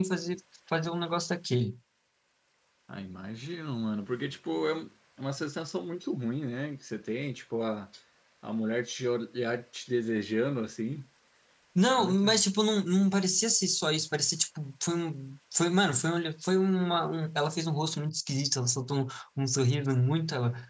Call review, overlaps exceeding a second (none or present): none